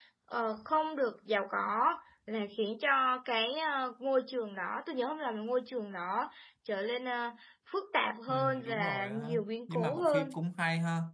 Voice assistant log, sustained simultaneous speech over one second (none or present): present